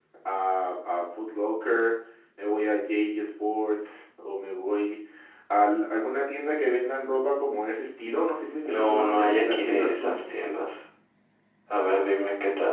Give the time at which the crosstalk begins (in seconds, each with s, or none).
8.6 s